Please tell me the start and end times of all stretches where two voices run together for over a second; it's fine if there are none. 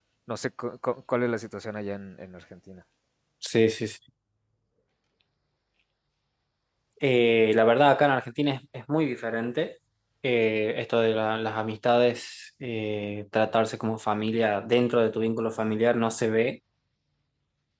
none

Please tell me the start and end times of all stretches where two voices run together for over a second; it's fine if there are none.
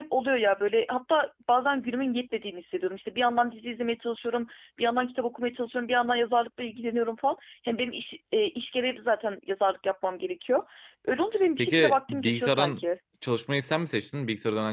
11.6-12.8

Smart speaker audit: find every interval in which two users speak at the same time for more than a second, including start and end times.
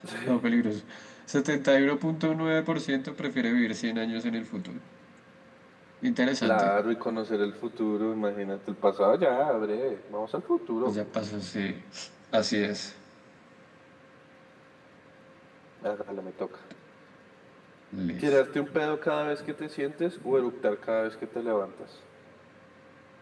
none

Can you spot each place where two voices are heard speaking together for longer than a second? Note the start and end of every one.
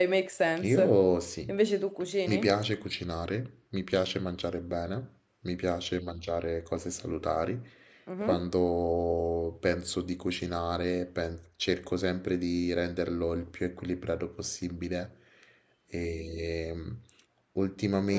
none

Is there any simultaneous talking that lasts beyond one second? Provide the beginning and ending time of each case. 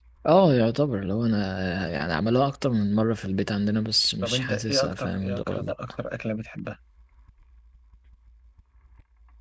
4.2-5.7

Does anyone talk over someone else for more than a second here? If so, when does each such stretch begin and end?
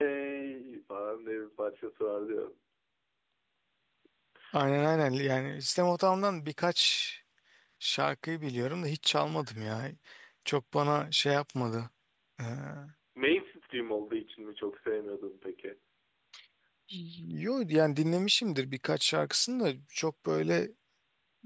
none

